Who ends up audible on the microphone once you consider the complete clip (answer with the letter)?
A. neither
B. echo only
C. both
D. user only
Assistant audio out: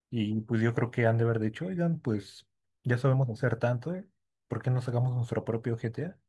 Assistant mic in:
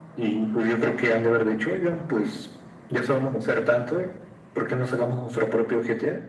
B